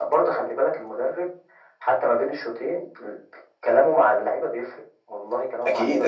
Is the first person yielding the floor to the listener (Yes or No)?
Yes